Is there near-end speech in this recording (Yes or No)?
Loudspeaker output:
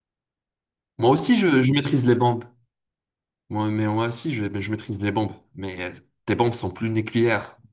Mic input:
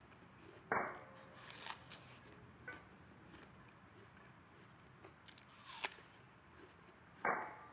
No